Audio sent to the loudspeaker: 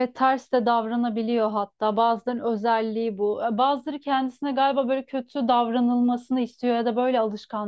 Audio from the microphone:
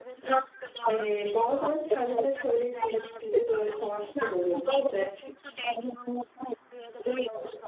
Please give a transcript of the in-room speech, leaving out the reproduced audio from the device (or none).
Ee, bazen kendimle şöyle şekilde böyle savaştığım oluyordu işte